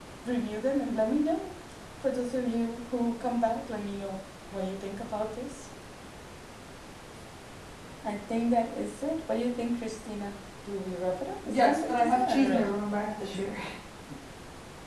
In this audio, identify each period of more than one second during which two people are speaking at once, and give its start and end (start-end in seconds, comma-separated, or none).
11.5-12.7